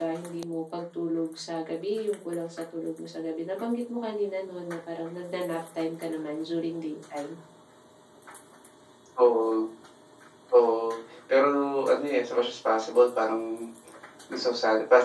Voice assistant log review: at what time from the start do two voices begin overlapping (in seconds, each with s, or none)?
none